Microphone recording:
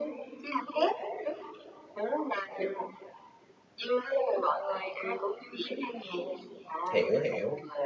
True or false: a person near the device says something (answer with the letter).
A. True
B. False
A